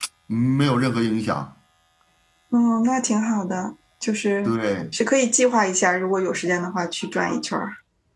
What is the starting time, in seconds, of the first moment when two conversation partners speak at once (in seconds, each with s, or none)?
none